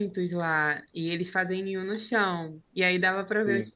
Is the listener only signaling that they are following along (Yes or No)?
Yes